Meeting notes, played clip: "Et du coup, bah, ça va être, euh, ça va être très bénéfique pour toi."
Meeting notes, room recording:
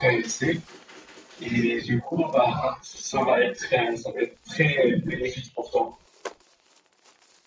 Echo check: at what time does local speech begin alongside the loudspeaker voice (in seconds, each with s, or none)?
none